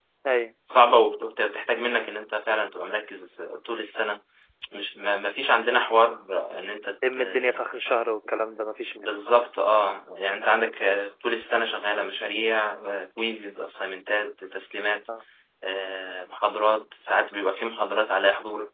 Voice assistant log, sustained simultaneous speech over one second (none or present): none